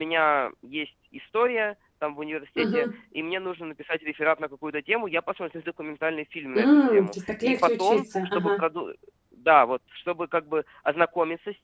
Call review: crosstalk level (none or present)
present